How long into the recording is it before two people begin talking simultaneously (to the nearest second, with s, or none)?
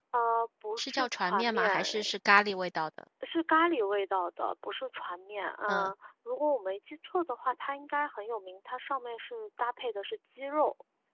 1 s